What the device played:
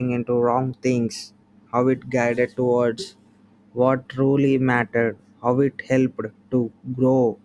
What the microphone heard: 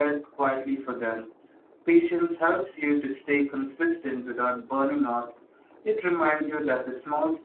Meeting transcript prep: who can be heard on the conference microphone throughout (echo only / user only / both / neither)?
user only